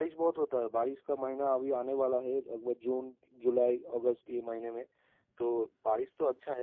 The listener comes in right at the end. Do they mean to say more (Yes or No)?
No